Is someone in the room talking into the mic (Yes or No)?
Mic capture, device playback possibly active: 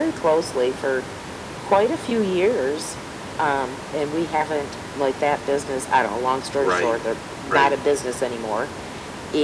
Yes